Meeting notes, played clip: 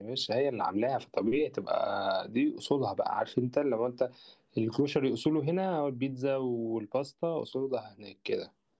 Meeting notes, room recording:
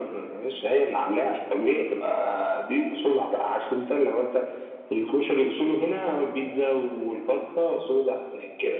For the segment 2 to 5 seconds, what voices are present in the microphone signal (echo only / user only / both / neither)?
echo only